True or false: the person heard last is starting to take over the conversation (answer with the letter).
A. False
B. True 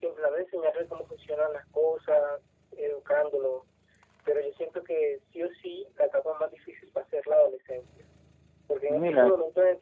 A